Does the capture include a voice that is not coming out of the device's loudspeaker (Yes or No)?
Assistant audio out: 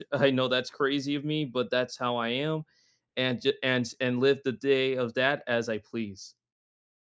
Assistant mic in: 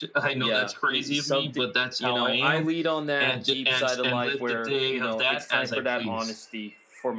Yes